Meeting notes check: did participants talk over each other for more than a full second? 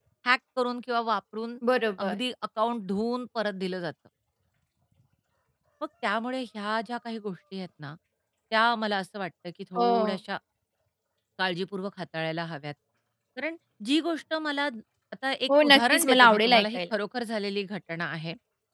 Yes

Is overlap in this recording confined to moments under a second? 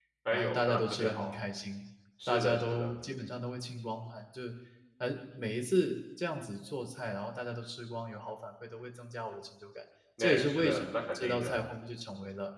No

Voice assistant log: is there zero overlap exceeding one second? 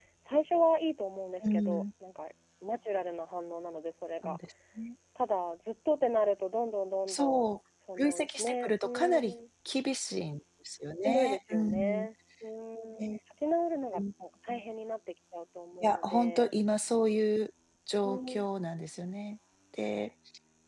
No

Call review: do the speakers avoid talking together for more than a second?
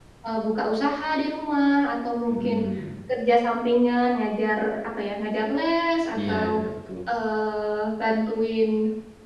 Yes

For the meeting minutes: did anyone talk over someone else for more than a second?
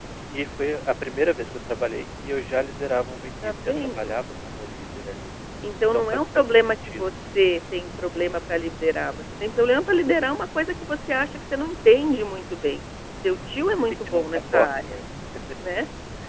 Yes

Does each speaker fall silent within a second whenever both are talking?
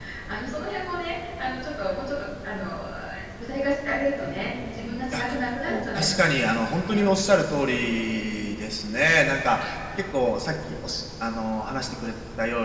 No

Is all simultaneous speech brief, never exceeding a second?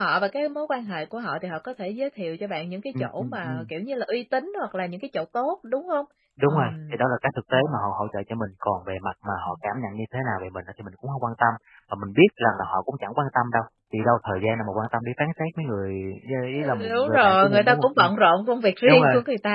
No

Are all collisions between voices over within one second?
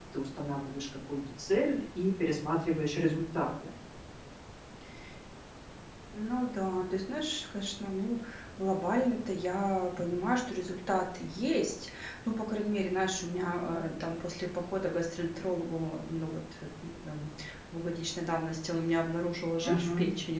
Yes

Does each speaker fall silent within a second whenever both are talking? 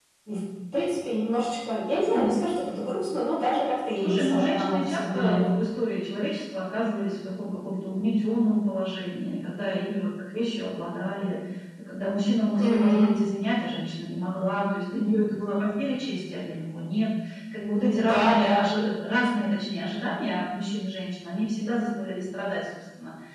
No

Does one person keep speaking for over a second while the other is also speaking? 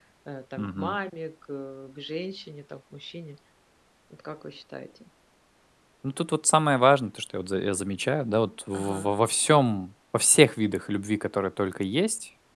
No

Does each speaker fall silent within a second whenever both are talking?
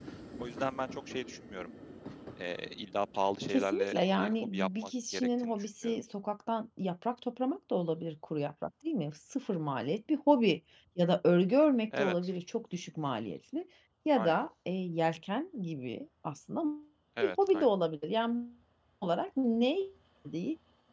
No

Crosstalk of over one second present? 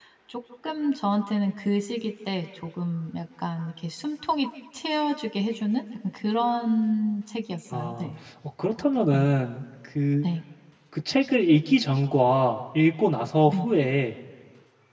No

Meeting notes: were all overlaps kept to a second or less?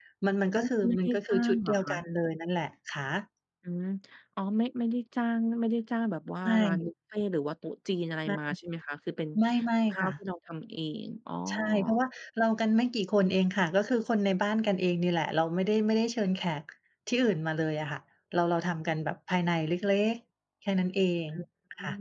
No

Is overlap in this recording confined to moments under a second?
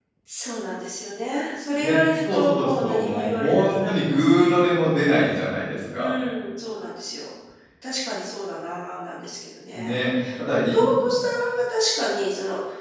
No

